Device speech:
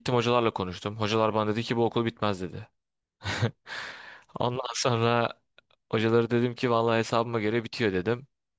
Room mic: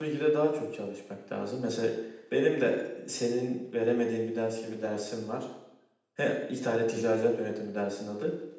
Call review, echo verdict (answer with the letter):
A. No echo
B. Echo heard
A